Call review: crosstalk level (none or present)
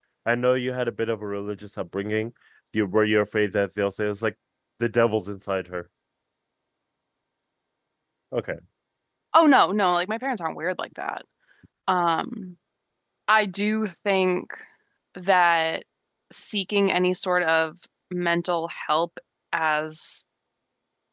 none